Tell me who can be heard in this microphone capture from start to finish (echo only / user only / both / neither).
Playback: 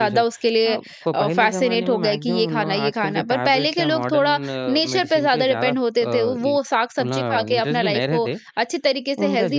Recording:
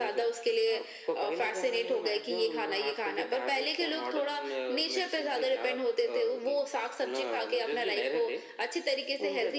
echo only